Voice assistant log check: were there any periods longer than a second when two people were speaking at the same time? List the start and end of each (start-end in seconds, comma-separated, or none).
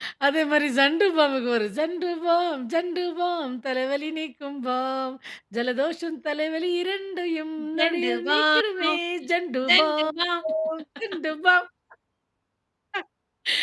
7.8-9.0